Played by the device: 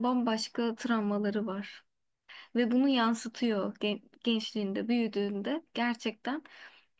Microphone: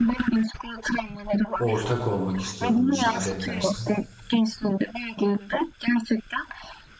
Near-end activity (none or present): present